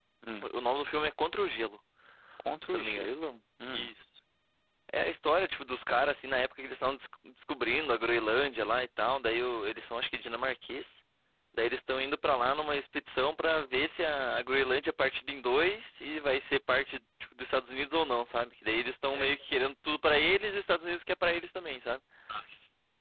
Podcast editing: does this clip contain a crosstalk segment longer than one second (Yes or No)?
No